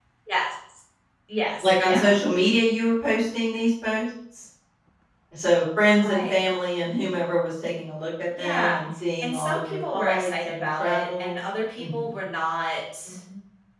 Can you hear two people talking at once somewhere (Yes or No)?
Yes